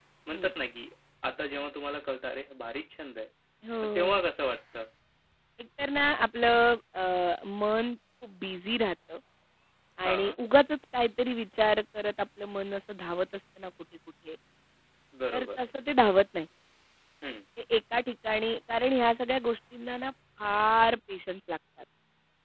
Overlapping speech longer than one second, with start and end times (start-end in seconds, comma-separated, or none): none